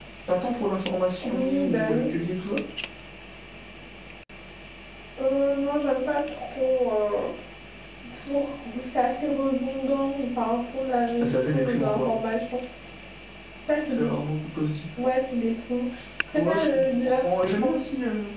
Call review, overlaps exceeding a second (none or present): present